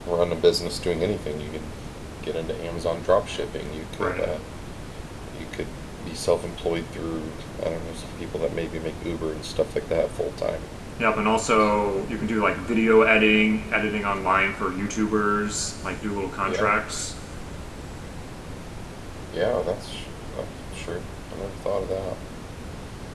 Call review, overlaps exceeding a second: none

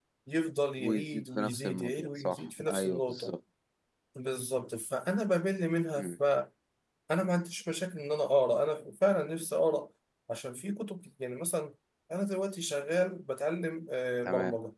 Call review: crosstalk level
present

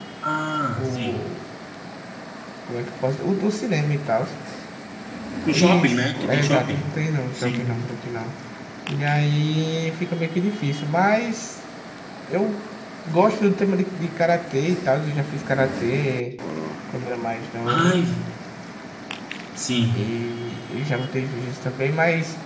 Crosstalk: present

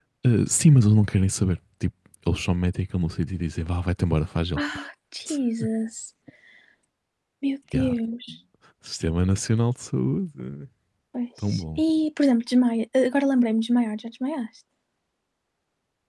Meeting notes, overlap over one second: none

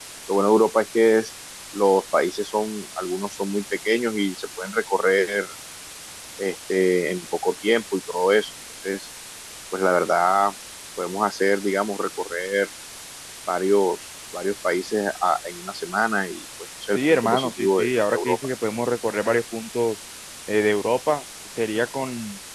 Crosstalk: present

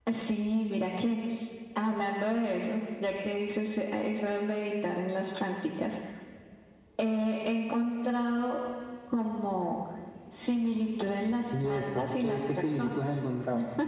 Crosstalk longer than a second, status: present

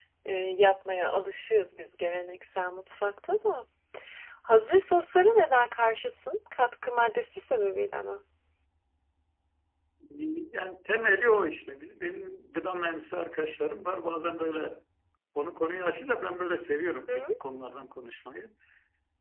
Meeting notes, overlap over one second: none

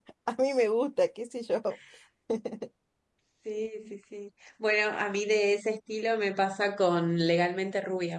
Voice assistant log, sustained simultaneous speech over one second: none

